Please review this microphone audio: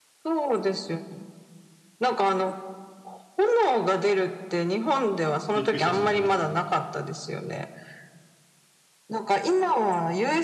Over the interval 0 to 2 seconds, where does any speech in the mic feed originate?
echo only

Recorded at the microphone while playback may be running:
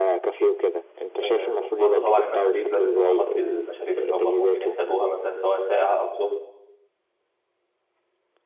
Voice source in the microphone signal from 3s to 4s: both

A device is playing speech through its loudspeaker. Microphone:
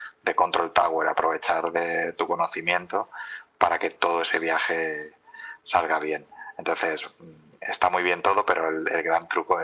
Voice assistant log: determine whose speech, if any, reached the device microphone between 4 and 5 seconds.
echo only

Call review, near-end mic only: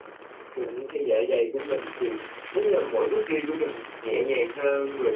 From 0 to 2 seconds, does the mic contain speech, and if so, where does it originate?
echo only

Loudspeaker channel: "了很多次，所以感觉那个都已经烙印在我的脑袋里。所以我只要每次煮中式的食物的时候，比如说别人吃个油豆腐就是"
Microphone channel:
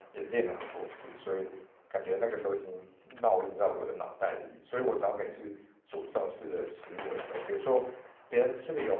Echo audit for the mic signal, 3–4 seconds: echo only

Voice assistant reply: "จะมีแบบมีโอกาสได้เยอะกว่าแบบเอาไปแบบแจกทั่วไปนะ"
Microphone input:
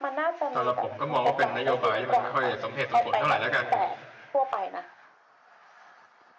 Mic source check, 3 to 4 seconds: both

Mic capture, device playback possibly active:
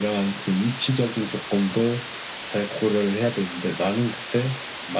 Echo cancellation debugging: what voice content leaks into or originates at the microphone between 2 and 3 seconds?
echo only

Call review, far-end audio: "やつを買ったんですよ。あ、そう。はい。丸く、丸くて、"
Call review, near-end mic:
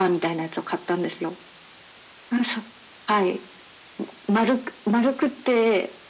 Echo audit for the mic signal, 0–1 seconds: echo only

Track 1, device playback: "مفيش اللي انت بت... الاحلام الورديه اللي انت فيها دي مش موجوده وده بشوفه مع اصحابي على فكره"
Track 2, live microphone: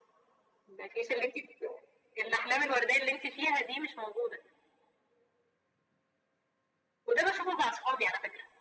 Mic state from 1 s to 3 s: echo only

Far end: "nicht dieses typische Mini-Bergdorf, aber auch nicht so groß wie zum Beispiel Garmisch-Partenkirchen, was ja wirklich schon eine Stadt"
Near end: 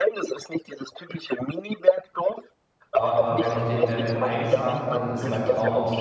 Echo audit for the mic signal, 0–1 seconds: echo only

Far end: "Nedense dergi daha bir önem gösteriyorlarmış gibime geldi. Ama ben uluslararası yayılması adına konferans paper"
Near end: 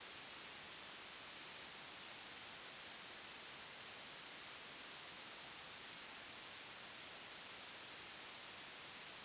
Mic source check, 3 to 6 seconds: neither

